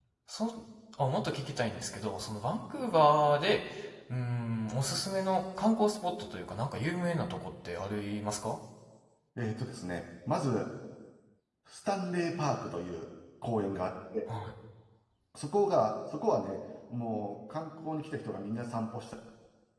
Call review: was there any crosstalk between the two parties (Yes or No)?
No